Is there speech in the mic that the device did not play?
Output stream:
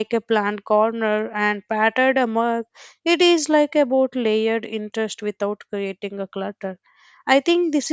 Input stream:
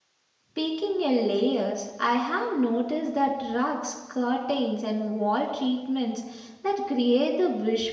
Yes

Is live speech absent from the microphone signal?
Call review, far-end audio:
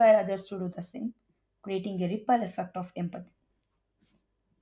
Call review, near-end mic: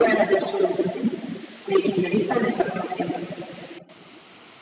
Yes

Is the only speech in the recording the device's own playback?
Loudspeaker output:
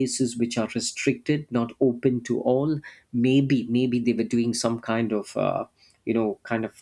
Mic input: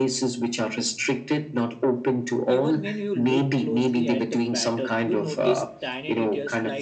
No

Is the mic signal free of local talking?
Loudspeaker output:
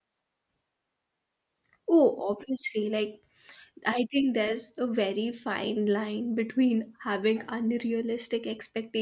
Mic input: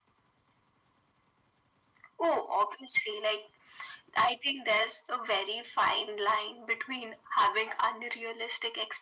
Yes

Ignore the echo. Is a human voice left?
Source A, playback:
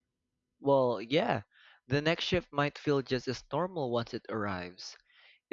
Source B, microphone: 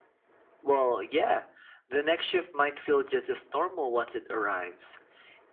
No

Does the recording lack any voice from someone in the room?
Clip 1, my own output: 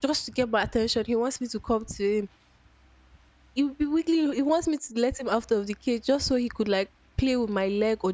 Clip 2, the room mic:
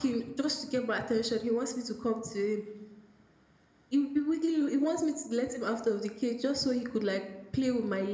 Yes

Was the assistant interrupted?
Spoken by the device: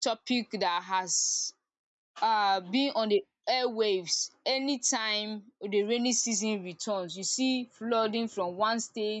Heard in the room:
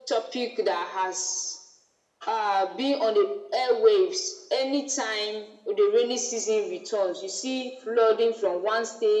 No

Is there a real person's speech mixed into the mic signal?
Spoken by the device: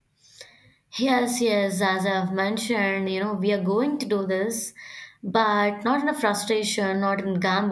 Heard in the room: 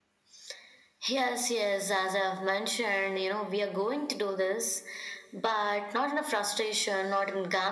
No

